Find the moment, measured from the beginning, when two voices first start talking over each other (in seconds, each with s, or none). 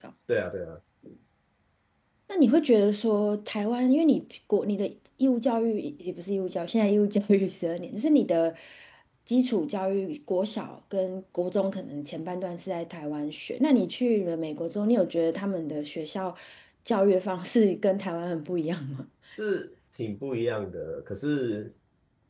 none